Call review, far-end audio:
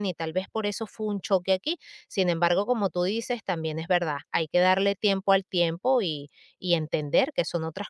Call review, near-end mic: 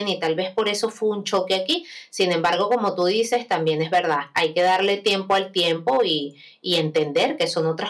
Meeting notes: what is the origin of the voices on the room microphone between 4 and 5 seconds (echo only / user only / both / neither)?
echo only